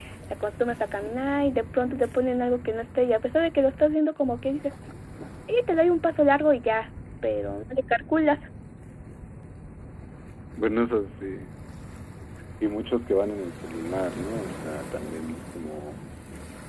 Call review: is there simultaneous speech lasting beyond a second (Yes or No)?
No